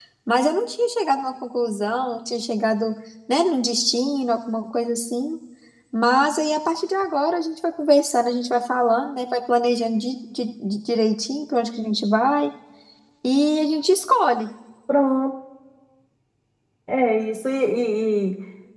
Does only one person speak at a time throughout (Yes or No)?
Yes